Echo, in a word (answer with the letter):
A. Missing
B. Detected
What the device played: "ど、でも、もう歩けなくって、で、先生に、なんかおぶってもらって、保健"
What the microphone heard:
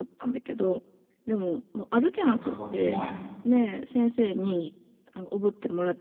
B